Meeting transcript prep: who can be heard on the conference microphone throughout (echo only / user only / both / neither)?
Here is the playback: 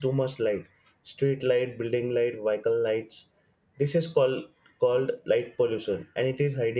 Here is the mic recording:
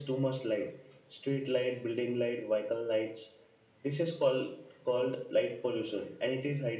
echo only